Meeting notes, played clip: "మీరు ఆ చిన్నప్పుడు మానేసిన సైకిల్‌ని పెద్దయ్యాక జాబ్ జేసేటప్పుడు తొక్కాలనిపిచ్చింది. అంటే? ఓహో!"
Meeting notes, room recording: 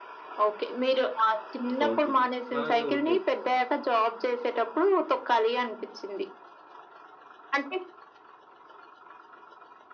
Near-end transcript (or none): ఆ సౌండ్ విని. అలాగా ఉండేది.